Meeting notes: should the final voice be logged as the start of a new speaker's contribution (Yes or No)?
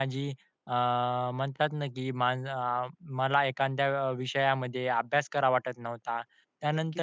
Yes